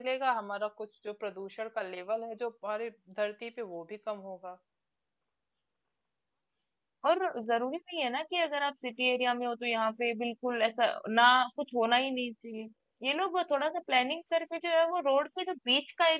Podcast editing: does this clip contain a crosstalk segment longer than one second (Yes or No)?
No